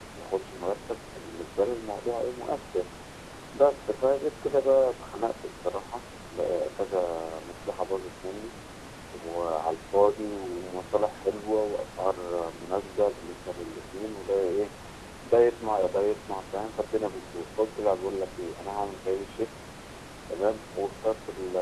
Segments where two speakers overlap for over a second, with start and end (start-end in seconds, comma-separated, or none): none